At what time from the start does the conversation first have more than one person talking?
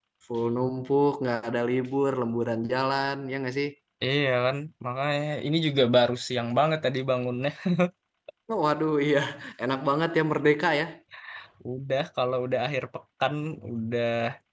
none

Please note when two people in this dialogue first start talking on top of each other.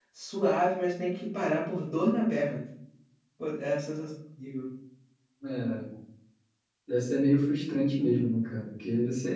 none

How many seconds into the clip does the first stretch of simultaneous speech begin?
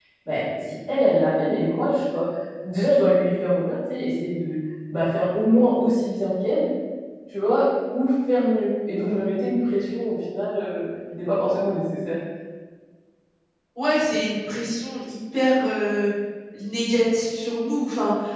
none

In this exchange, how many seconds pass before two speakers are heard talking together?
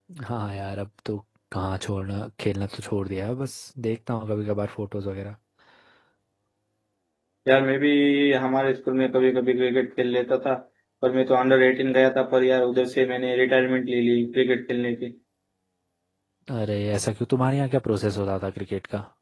none

